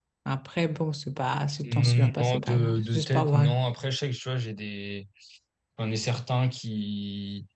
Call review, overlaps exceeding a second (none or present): present